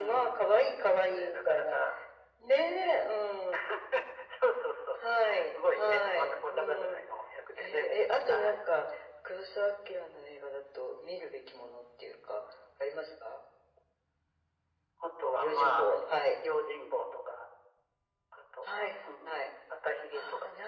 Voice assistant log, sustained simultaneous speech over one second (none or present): present